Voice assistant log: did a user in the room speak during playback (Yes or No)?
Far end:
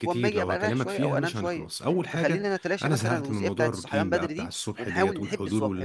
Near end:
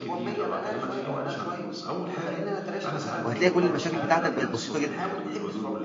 Yes